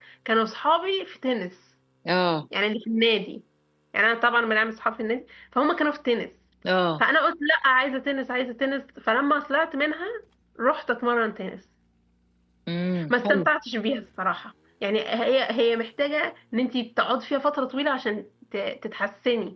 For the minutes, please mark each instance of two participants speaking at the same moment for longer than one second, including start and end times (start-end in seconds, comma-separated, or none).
none